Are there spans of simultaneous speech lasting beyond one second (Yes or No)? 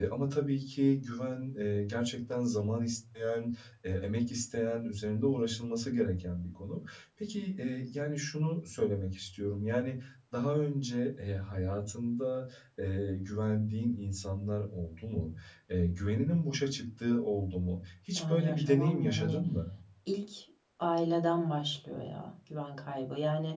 Yes